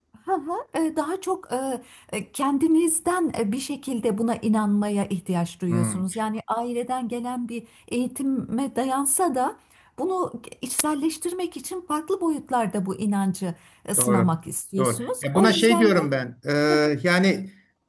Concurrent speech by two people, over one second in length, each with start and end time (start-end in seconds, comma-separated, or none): 14.8-16.0